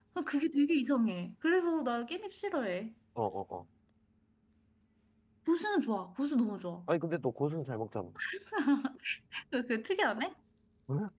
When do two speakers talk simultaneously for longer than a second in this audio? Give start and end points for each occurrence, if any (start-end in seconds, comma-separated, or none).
none